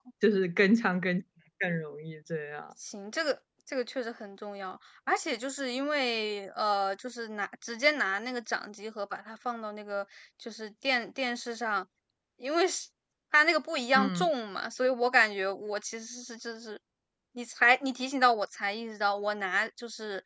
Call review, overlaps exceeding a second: none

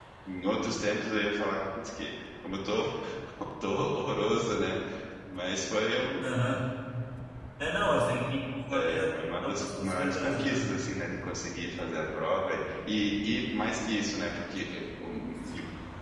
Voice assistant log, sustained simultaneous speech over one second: present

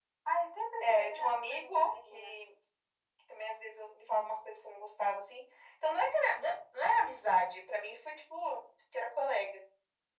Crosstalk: present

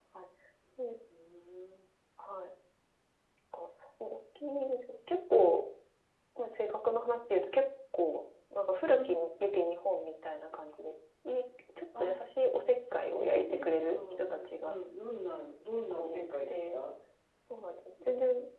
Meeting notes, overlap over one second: present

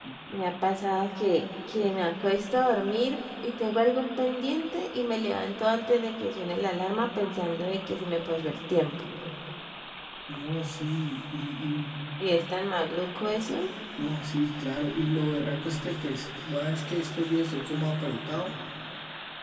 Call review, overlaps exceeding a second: none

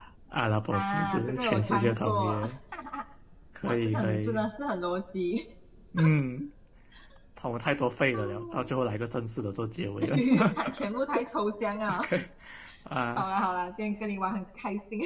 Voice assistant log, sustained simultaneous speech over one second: present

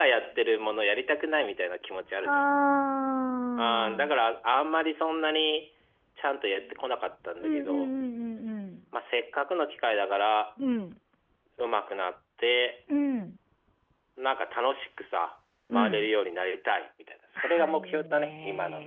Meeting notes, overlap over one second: present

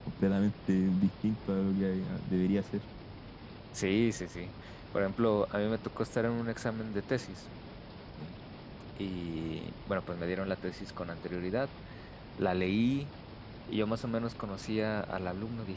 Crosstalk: none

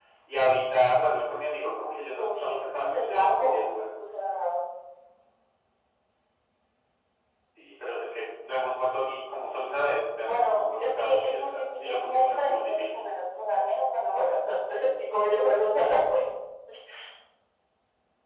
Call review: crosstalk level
present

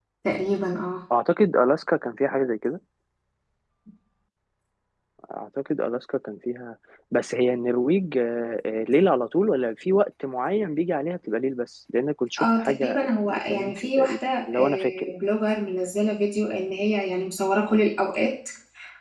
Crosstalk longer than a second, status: present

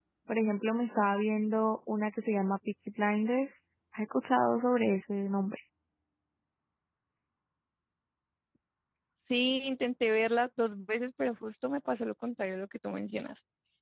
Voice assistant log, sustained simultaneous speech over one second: none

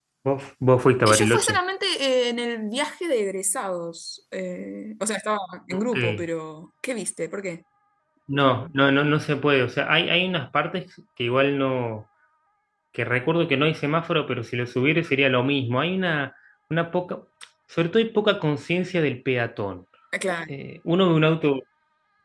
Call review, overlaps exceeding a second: none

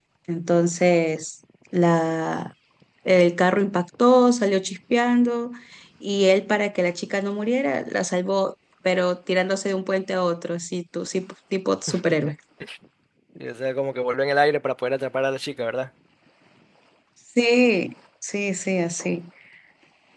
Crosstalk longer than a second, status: none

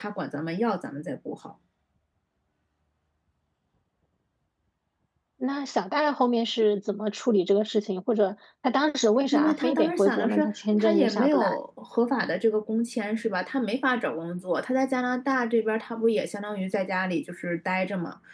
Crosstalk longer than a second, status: present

